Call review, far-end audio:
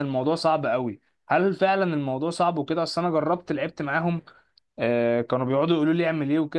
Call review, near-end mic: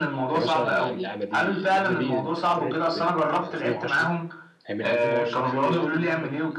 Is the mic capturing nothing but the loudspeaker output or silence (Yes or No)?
No